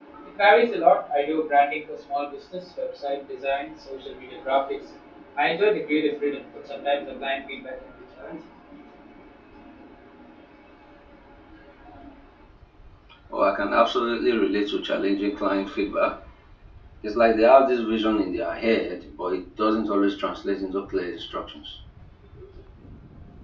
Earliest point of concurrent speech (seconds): none

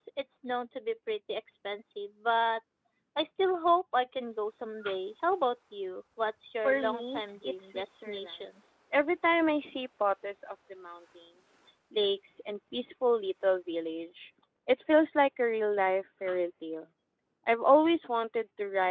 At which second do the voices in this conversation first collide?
6.6 s

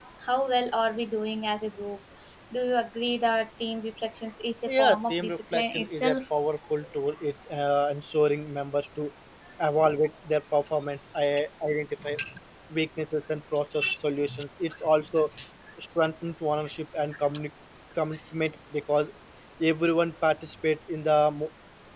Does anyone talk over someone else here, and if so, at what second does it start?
4.7 s

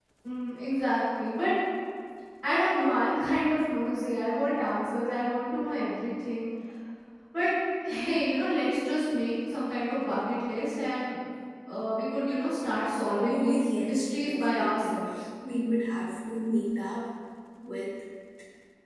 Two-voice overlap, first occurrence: 13.3 s

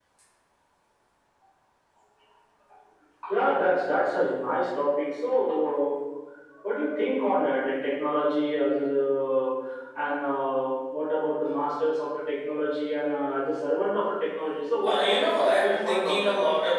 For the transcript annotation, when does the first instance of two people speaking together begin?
14.8 s

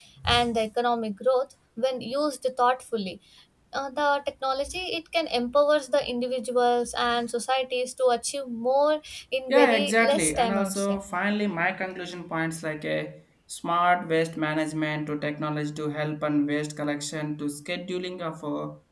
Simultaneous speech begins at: 9.5 s

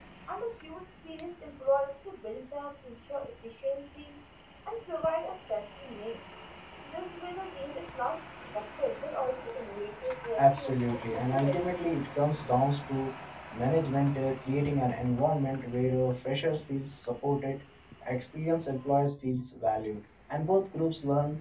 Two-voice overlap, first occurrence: 10.4 s

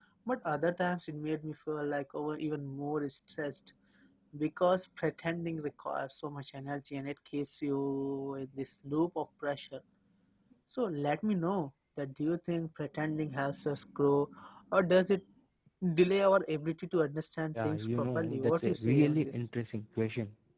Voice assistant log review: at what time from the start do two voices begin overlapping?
17.6 s

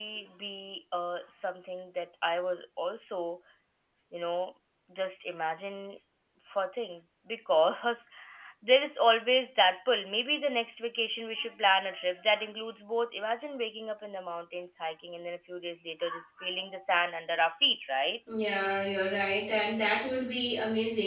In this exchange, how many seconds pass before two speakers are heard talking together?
none

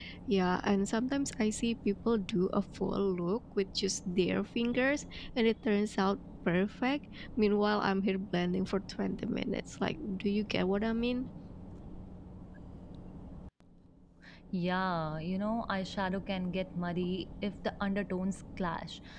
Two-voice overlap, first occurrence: none

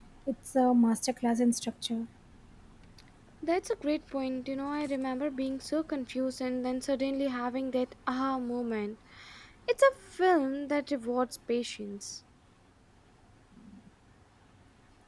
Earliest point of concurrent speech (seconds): none

